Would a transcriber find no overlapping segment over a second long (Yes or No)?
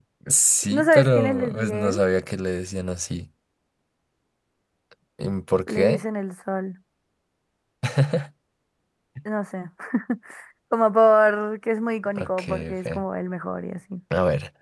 No